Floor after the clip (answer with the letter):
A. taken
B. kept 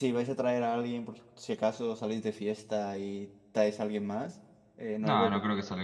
A